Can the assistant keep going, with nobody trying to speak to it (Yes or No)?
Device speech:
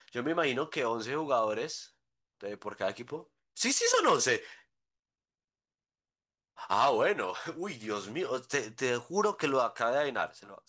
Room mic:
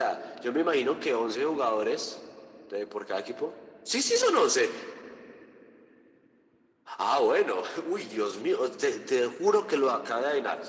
Yes